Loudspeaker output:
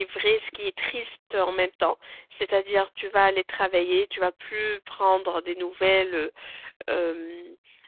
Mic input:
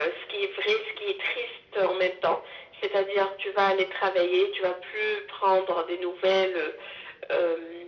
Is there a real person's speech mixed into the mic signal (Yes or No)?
No